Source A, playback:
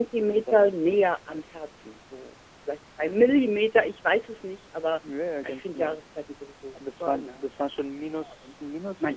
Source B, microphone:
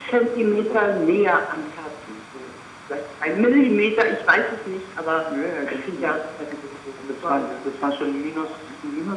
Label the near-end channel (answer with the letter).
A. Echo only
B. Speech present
A